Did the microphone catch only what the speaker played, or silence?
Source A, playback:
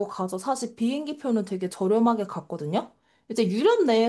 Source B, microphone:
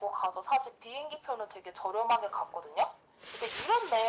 Yes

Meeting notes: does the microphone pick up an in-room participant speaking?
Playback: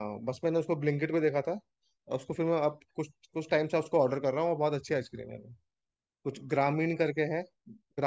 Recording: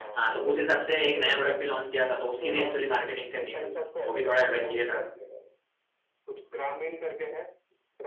Yes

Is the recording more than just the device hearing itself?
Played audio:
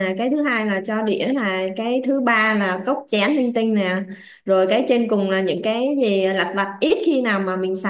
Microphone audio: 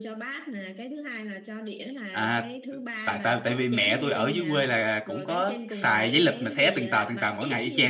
Yes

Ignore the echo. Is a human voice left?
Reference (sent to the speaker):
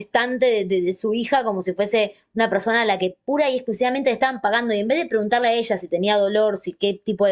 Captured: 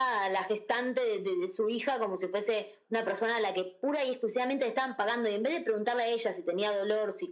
No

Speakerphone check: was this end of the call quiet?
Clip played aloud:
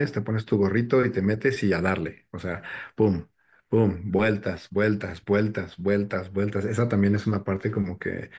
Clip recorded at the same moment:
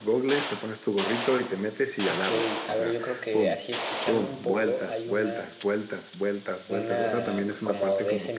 No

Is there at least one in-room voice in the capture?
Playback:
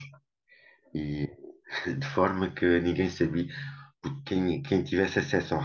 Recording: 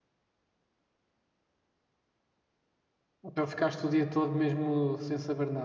Yes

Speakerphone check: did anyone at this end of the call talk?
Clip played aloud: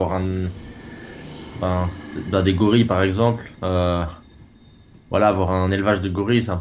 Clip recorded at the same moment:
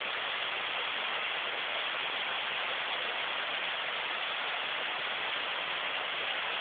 No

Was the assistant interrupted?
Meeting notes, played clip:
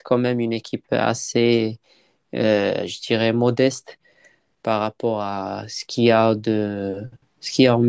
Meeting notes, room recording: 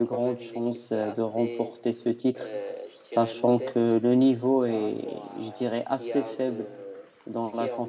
Yes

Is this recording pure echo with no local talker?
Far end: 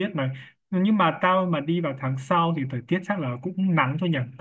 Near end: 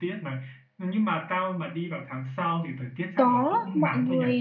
No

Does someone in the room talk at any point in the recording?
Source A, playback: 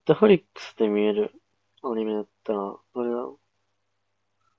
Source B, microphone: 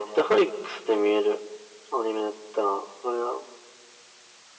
No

